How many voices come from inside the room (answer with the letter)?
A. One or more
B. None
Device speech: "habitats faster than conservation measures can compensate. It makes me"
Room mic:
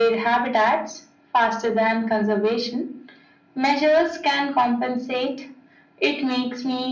B